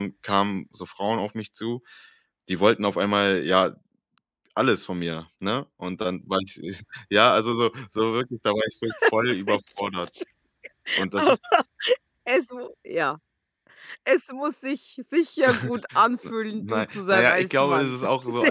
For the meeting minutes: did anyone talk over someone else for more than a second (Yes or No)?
Yes